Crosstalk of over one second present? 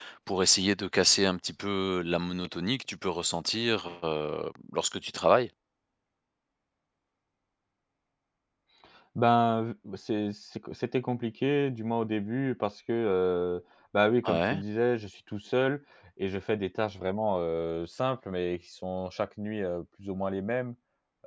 No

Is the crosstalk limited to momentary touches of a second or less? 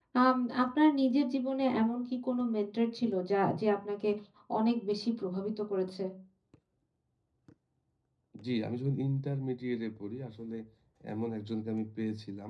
Yes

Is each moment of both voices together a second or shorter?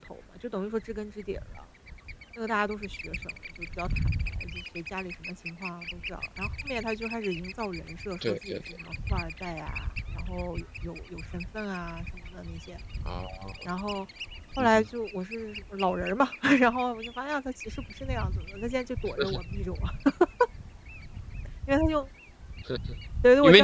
Yes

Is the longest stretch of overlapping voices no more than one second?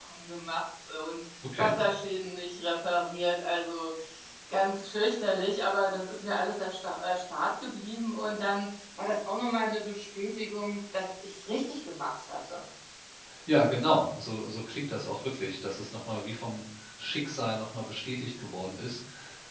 Yes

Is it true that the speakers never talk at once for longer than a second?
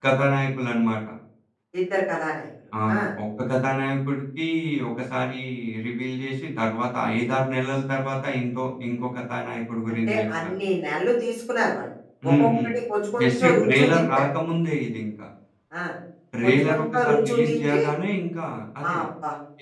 No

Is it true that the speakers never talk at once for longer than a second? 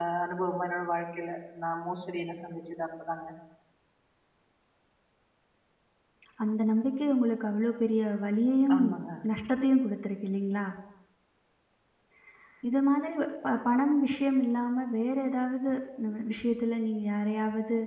Yes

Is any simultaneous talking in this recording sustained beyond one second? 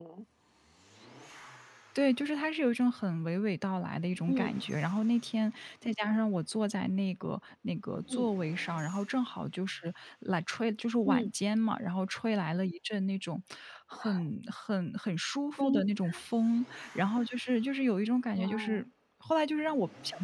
No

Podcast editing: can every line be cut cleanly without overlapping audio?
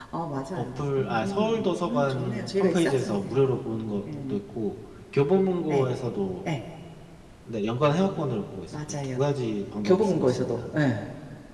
No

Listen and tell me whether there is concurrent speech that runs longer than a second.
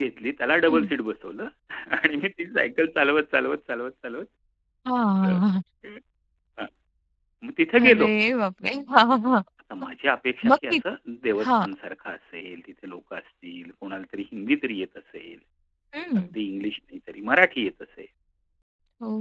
No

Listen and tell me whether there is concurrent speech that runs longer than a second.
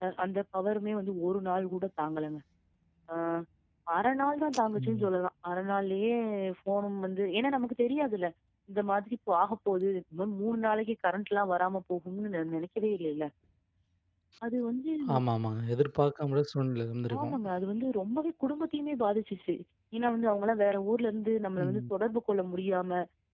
No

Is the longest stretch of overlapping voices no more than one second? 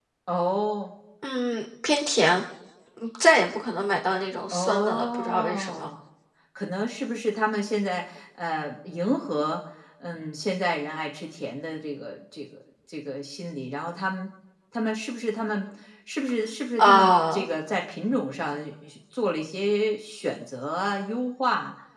No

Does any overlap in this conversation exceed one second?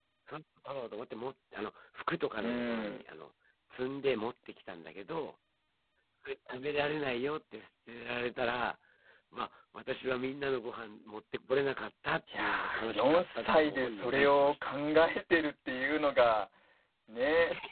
Yes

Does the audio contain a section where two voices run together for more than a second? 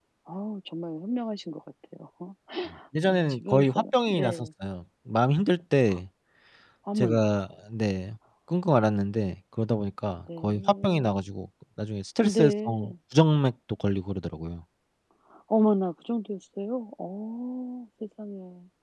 Yes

